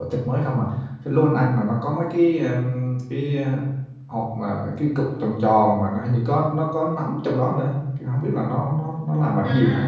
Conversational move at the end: taking over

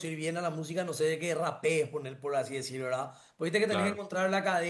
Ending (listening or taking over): listening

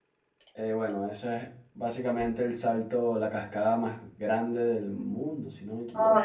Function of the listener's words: taking over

